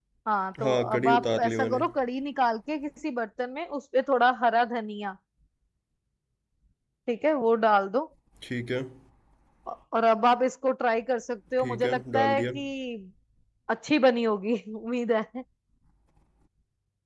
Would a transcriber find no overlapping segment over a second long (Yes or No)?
No